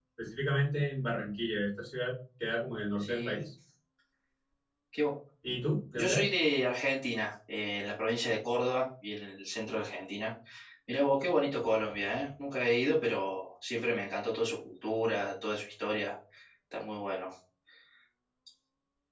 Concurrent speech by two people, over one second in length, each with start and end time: none

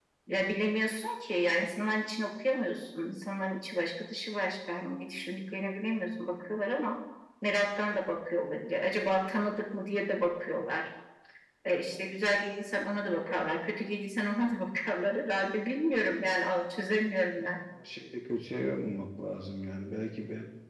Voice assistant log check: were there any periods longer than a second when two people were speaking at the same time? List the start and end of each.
none

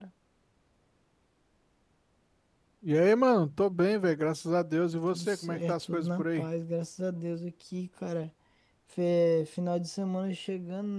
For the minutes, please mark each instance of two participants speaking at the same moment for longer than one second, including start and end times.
5.1-6.5

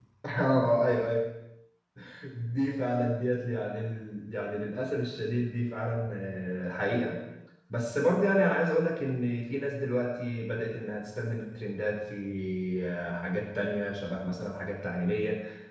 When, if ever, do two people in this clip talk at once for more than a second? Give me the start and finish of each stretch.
none

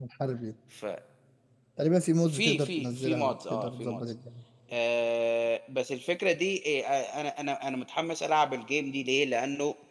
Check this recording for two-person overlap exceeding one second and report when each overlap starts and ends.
2.3-4.0

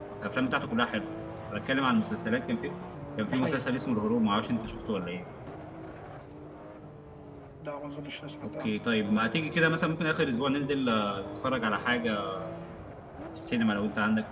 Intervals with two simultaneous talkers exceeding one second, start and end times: none

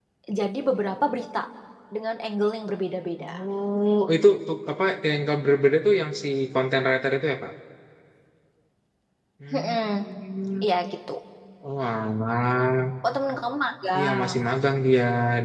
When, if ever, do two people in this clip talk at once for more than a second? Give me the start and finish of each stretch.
none

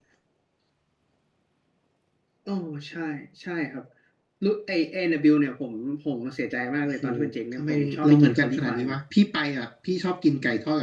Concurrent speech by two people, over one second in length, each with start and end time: 7.6-9.0

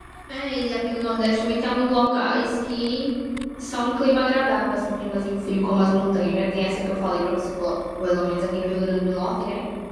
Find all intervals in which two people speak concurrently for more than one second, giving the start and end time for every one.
none

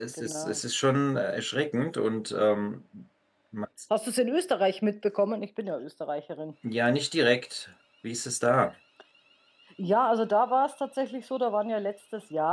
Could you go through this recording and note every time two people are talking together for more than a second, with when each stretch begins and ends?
none

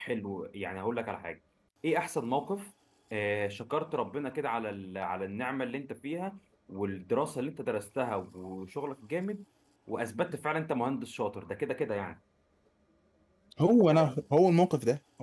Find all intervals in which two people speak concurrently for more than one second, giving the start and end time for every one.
none

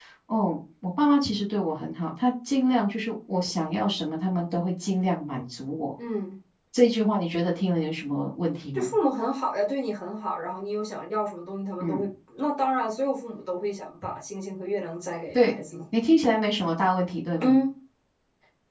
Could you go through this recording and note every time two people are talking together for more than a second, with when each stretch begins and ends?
none

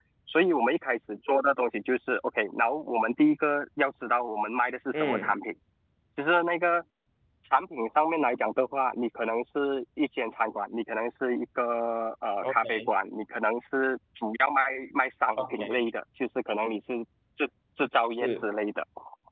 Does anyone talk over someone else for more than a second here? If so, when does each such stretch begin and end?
none

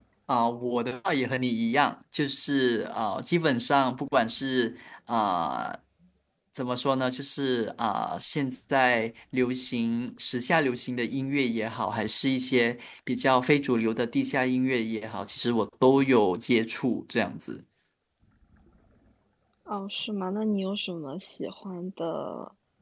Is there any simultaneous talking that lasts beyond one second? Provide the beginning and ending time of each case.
none

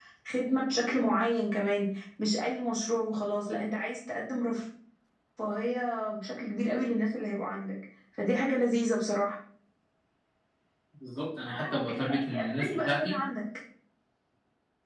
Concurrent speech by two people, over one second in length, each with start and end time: 11.5-13.2

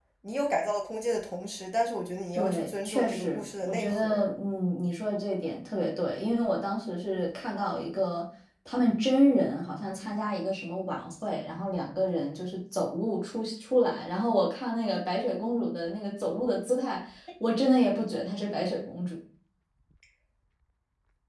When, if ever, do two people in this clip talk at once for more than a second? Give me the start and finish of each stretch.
2.4-4.2

